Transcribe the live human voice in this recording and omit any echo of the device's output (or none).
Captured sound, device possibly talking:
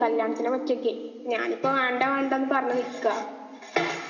none